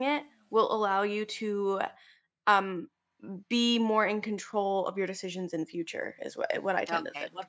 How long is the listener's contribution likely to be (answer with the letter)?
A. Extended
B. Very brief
A